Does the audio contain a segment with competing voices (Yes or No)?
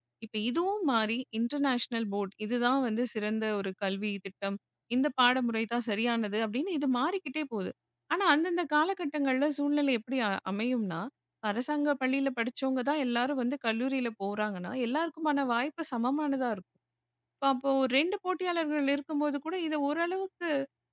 No